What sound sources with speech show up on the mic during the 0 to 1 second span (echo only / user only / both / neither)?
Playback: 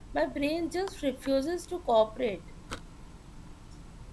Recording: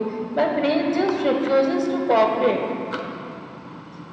echo only